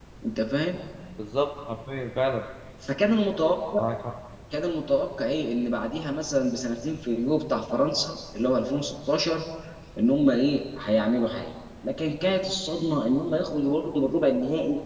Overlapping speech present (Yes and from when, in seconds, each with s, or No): No